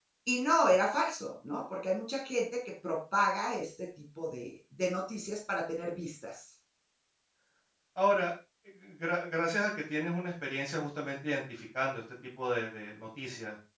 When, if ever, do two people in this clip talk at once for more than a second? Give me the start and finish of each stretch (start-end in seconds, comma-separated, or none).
none